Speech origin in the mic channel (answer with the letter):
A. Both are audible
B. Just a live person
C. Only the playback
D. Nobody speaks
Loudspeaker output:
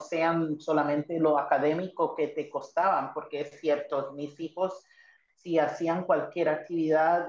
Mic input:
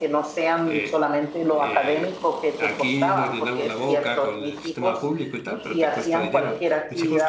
A